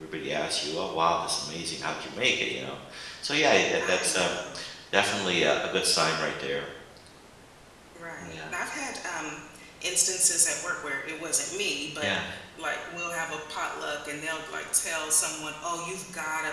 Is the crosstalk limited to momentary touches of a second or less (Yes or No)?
Yes